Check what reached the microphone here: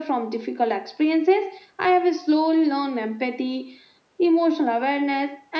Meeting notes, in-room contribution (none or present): none